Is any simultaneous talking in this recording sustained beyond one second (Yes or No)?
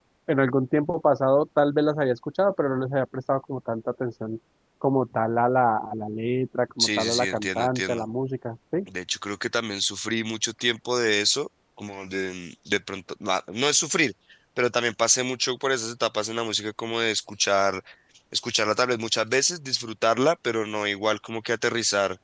Yes